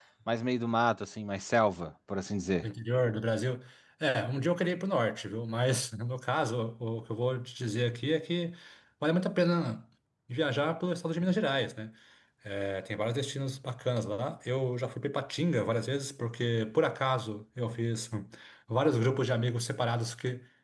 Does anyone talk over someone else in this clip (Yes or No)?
No